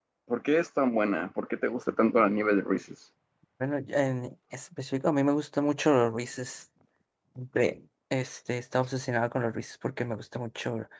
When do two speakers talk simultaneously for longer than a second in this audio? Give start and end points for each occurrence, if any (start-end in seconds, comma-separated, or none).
none